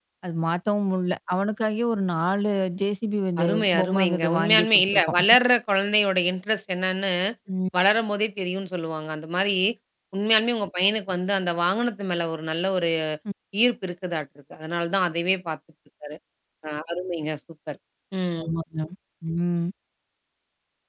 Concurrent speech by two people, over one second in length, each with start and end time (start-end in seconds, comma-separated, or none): 3.4-5.2